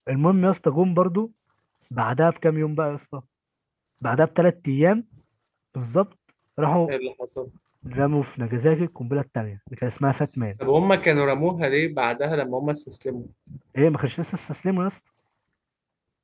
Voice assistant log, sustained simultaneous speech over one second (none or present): none